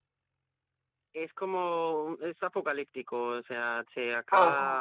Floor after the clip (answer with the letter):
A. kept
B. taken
A